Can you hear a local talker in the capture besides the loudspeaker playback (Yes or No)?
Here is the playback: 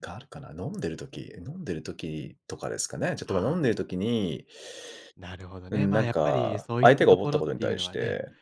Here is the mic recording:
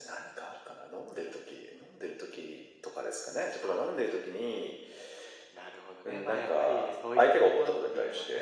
No